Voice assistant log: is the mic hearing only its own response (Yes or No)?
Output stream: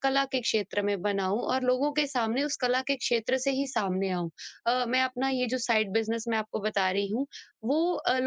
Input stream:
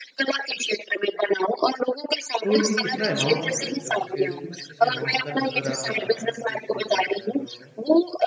No